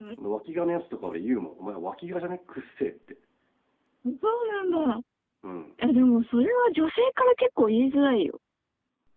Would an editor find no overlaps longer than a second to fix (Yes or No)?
Yes